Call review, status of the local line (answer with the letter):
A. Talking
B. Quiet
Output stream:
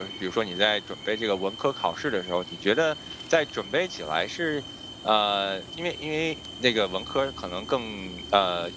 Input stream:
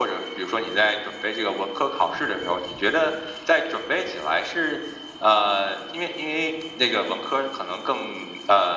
B